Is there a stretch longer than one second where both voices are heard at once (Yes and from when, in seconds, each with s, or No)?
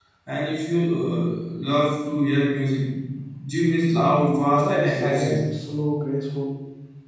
Yes, from 4.2 s